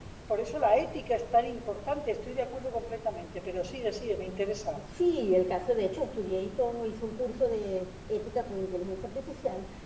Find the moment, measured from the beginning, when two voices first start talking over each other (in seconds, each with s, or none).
none